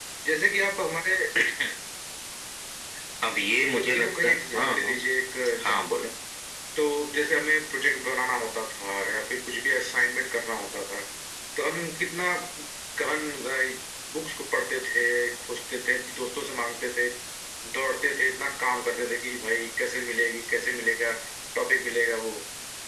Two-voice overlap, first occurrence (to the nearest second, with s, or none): 3 s